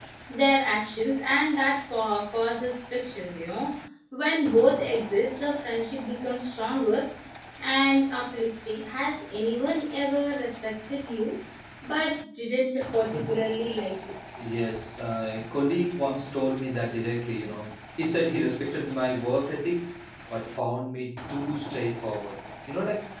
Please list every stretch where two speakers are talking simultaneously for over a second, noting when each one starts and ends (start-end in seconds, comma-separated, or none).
none